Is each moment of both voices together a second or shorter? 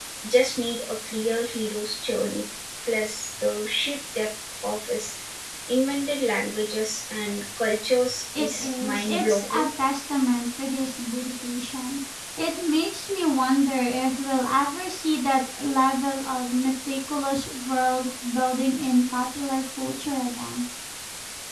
No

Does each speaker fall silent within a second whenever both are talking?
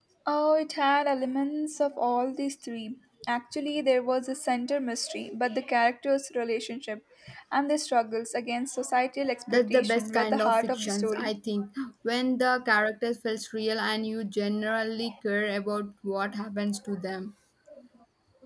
No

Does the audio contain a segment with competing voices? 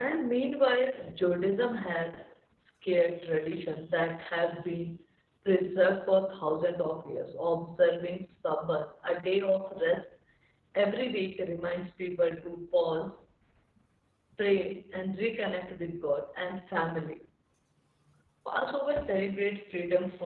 No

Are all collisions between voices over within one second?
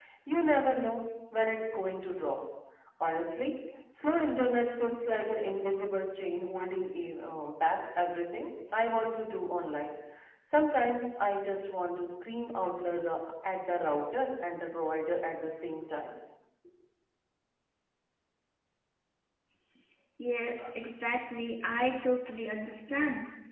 Yes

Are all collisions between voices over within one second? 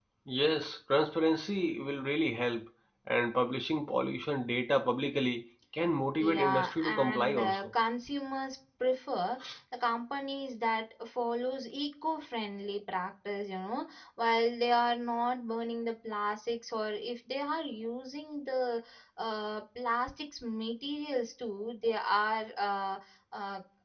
No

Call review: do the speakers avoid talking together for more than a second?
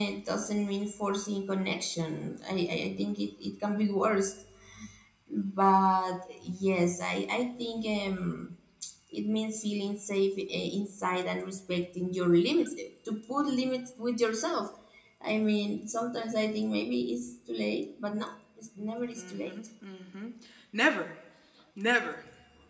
Yes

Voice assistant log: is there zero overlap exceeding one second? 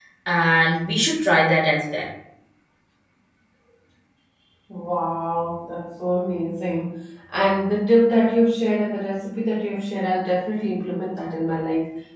Yes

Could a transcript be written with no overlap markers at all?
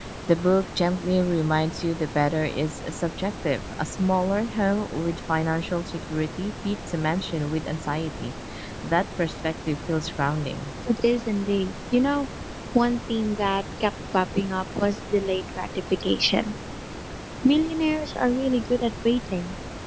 Yes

